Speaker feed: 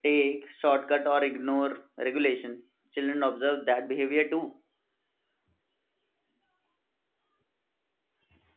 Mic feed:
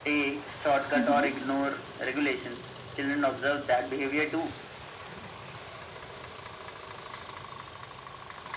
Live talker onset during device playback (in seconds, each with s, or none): 0.9 s